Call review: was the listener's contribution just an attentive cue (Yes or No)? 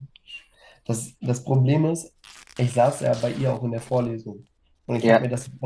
Yes